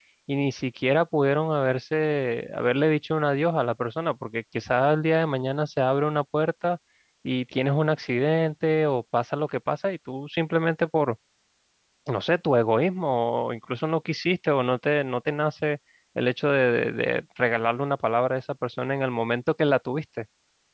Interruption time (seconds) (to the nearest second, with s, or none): none